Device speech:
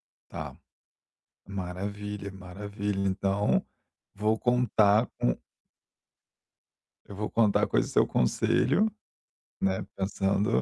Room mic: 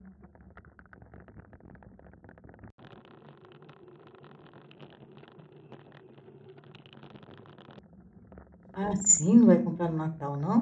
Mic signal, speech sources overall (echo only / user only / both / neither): user only